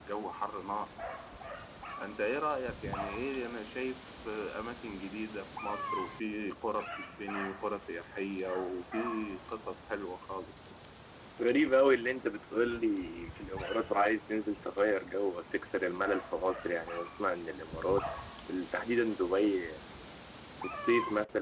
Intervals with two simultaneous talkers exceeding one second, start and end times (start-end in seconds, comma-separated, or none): none